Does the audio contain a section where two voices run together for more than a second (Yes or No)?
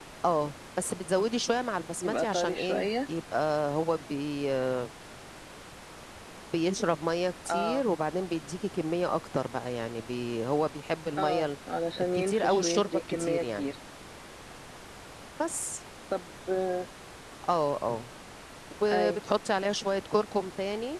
Yes